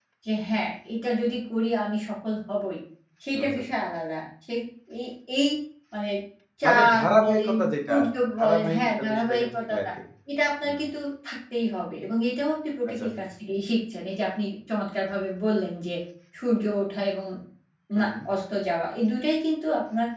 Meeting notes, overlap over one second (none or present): present